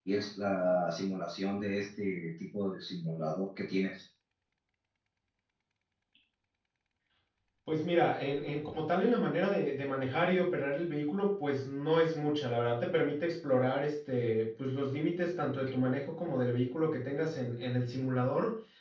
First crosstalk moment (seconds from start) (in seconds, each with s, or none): none